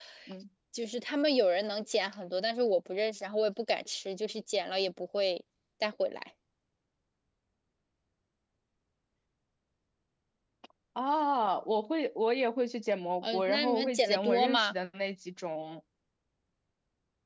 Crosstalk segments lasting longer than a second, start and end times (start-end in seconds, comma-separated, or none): 13.2-14.7